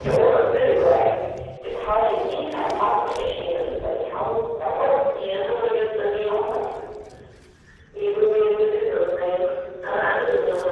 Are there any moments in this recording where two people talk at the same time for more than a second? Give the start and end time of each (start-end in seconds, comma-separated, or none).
none